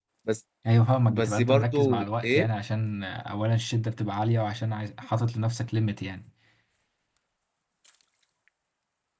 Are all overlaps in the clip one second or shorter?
No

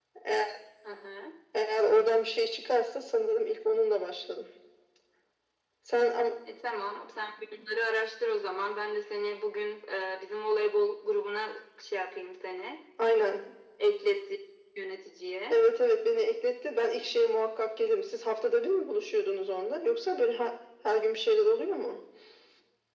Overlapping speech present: No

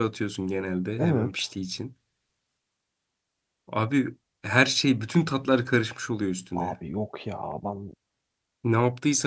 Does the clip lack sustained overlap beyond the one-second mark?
Yes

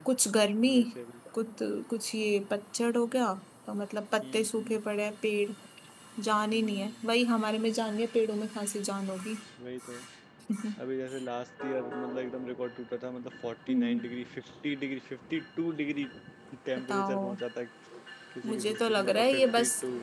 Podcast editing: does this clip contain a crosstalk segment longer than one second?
Yes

